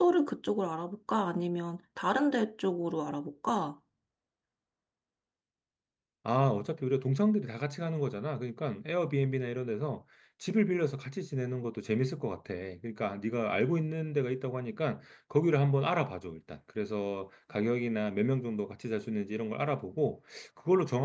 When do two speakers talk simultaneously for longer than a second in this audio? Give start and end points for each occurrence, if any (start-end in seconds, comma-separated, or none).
none